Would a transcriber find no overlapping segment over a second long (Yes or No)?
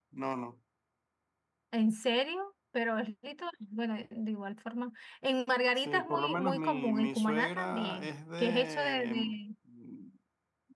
No